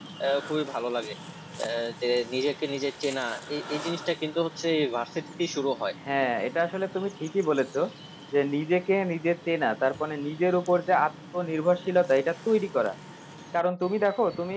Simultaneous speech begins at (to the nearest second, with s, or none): none